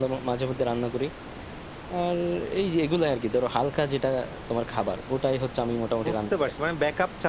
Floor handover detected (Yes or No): Yes